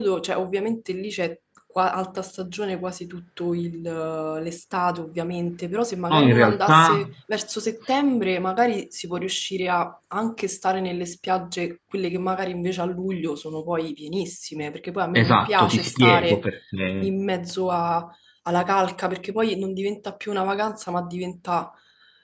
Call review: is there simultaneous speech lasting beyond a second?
Yes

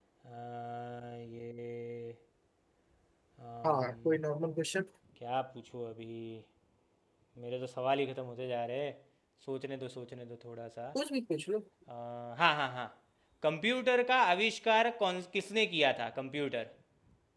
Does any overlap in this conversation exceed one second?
No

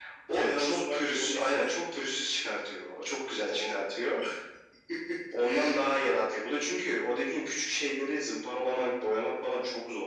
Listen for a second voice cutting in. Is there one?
Yes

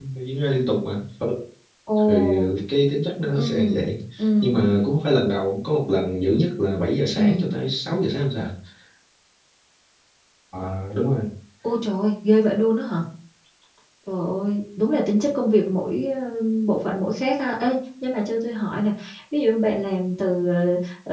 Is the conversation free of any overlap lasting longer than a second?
Yes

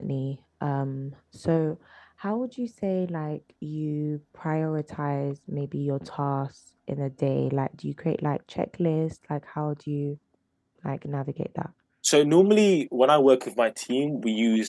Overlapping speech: No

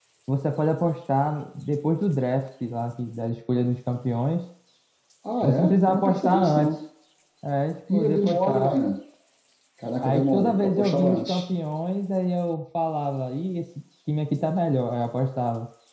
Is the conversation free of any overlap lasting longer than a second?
No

